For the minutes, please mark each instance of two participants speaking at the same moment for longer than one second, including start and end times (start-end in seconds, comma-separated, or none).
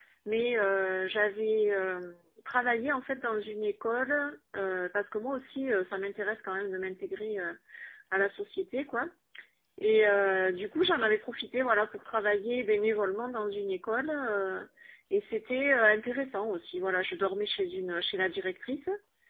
none